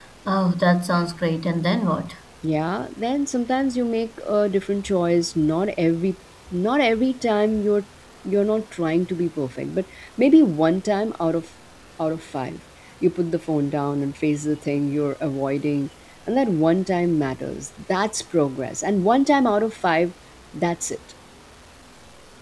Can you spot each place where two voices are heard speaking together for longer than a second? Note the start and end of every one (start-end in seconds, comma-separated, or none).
none